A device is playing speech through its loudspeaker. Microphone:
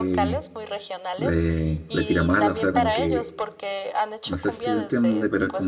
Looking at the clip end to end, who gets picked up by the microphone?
both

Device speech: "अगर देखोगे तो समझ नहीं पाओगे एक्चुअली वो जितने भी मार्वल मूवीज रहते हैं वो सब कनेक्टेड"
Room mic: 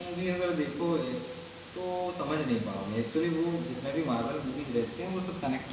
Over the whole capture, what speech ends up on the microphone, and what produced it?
echo only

